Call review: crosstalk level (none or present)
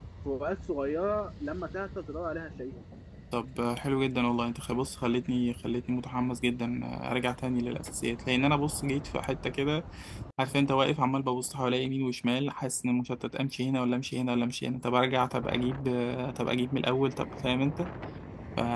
none